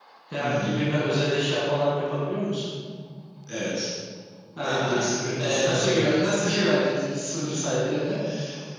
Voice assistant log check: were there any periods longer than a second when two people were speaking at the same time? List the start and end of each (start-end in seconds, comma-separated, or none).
4.6-6.0